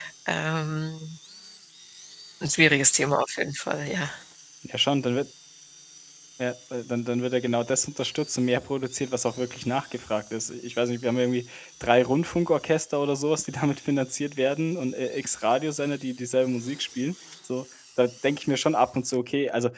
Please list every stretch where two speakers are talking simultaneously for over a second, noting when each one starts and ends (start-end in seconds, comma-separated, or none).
none